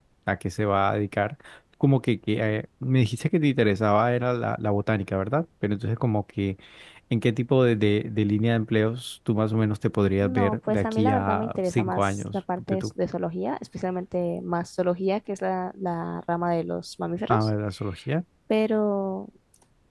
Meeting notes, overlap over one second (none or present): present